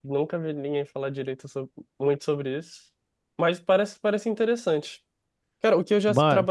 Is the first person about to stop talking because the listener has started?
No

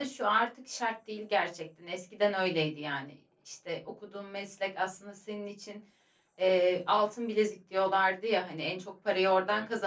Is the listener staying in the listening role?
Yes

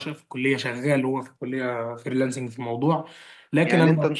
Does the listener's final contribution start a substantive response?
Yes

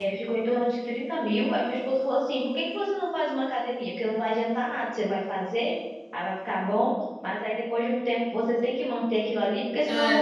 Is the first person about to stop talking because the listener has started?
Yes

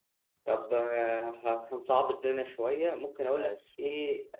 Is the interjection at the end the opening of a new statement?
No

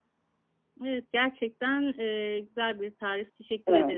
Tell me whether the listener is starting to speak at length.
Yes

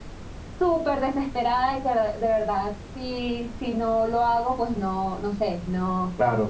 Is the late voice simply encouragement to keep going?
No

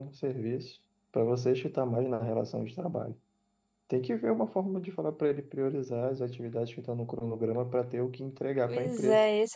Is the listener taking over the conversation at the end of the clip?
Yes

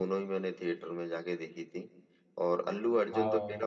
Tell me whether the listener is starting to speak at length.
No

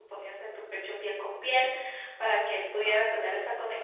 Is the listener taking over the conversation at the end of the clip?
No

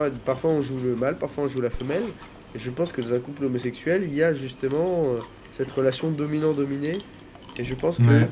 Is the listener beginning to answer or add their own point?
No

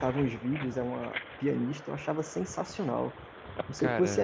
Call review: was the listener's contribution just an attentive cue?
Yes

